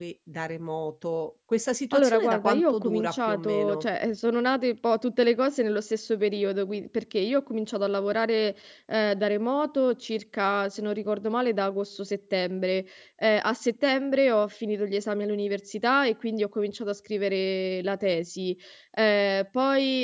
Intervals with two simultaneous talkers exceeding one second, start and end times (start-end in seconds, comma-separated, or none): 1.9-3.8